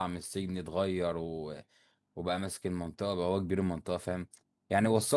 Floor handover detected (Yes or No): No